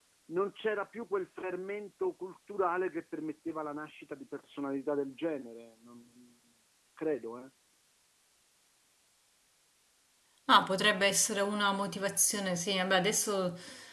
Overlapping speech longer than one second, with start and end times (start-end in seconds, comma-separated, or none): none